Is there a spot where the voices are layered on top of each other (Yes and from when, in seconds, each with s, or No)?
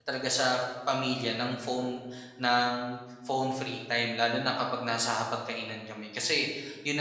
No